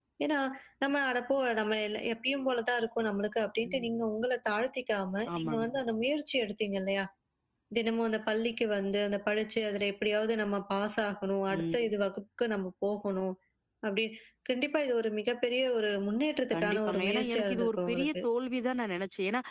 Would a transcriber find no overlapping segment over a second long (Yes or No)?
No